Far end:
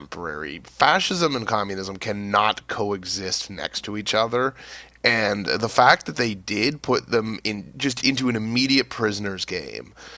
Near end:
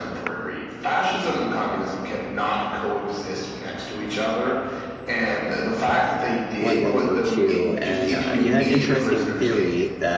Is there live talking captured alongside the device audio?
Yes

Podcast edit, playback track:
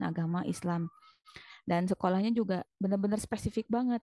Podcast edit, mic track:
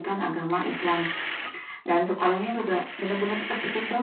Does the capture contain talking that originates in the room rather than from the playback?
No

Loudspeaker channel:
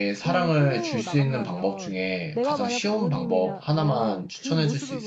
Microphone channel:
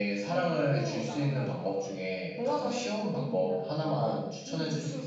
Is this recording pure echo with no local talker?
Yes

